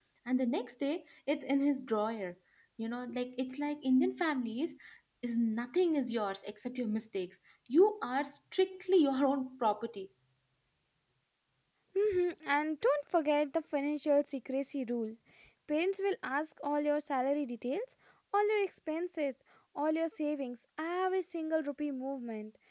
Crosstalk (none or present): none